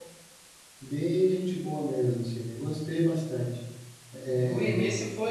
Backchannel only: No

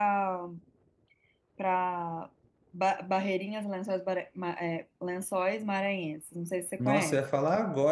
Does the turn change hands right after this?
Yes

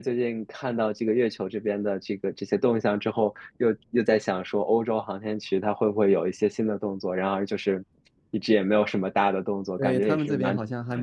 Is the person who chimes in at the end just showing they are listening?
No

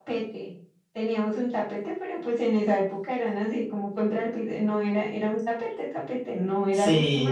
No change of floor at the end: Yes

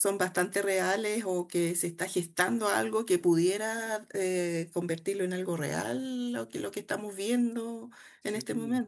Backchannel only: No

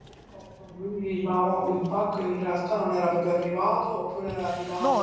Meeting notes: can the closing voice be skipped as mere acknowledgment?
No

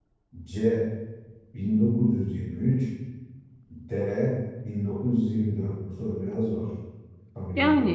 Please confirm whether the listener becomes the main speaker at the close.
Yes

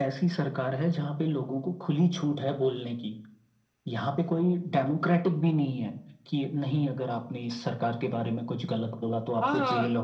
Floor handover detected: Yes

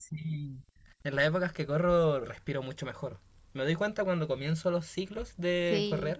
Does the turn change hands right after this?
No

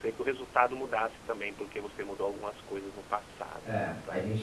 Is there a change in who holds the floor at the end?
Yes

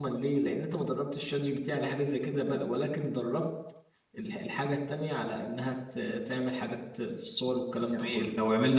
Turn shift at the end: Yes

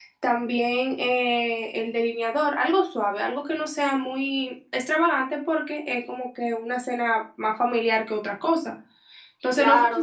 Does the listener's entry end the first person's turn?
No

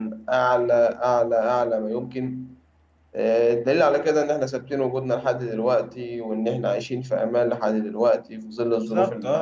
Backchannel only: No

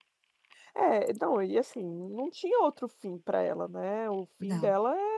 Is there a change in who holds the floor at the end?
No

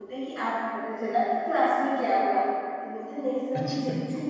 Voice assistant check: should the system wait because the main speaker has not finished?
Yes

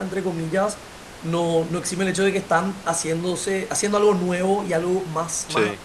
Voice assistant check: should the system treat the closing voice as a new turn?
No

